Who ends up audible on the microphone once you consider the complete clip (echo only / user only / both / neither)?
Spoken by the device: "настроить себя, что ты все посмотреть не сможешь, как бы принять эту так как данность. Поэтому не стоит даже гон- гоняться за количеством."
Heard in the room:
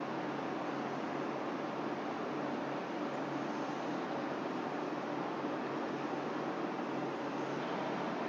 neither